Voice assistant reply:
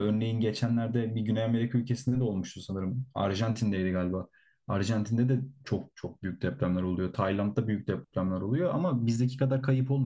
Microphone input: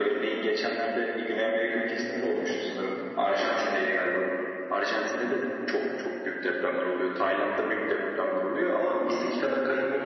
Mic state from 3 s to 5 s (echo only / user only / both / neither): echo only